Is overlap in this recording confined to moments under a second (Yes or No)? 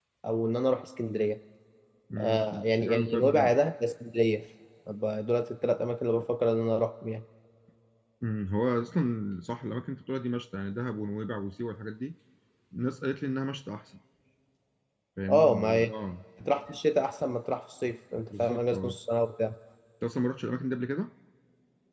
No